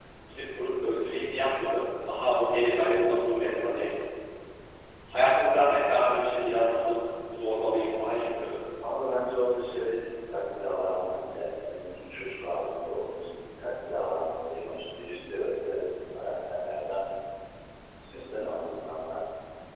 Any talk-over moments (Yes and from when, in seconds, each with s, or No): No